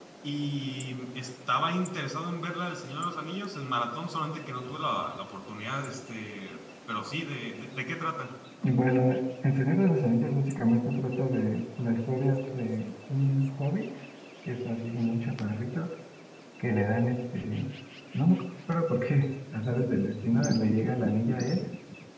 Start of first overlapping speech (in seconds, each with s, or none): none